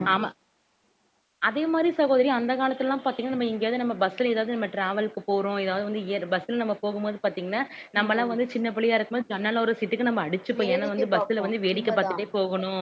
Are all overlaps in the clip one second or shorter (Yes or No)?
No